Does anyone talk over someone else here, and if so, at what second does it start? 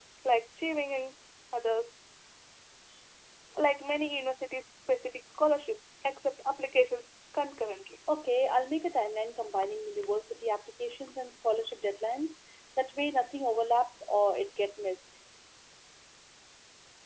none

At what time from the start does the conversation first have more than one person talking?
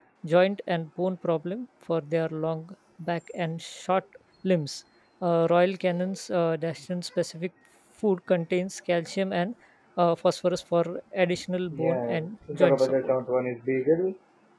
11.7 s

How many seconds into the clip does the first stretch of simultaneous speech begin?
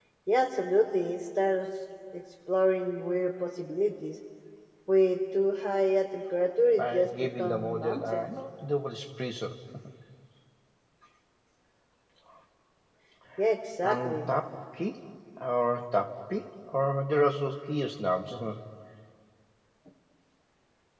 6.8 s

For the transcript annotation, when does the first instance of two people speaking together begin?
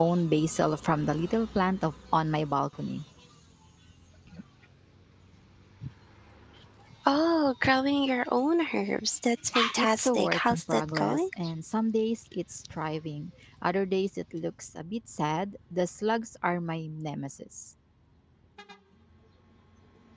9.8 s

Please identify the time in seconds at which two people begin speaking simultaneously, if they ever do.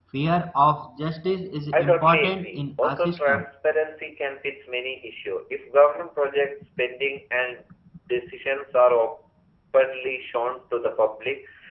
1.7 s

